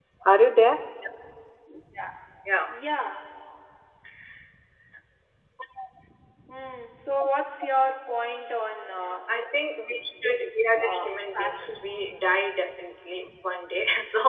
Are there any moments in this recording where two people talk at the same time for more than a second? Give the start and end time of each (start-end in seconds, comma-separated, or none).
10.2-11.9